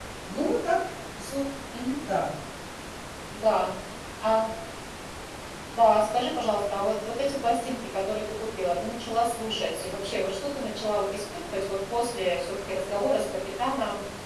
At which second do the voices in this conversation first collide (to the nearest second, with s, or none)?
none